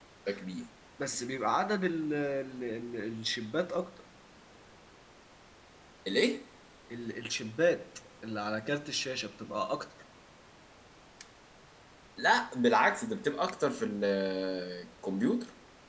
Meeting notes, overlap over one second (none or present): none